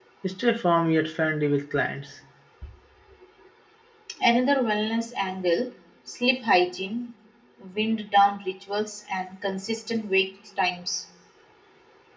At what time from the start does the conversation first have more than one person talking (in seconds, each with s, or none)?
none